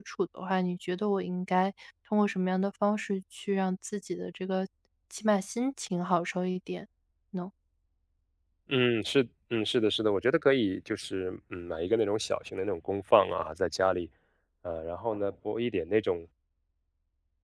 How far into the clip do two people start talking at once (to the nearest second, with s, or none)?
none